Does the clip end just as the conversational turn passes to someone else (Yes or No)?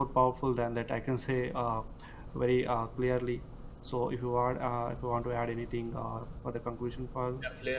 Yes